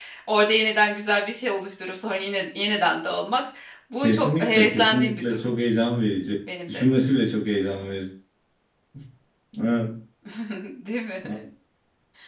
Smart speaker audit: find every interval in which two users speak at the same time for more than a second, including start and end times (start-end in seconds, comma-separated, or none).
4.0-5.5